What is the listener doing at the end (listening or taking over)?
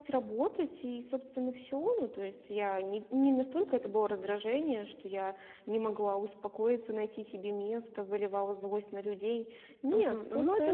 taking over